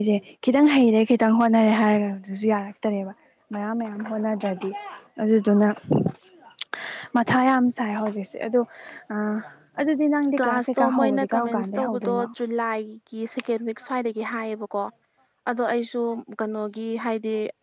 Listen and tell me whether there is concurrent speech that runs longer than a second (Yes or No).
Yes